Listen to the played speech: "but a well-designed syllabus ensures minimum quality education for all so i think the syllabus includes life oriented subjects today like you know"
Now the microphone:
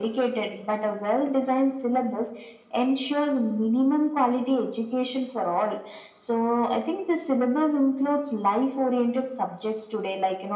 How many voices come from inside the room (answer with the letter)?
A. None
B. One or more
A